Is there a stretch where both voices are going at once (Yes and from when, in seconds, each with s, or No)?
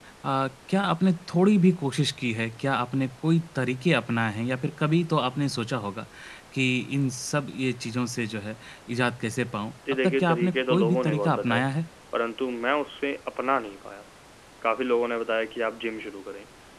Yes, from 9.9 s